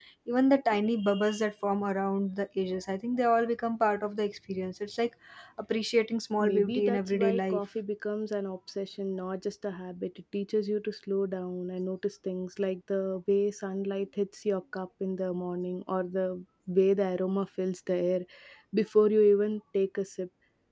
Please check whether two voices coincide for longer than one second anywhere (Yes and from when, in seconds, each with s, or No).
Yes, from 6.4 s